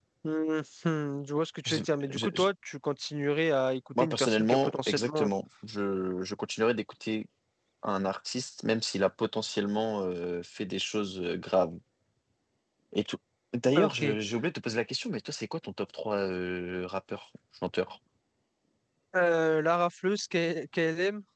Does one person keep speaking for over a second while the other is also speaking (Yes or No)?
Yes